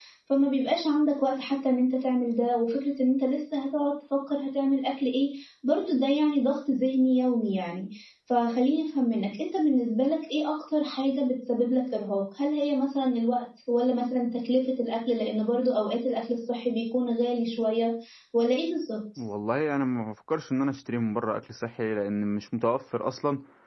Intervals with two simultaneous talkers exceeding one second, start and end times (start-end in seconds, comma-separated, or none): none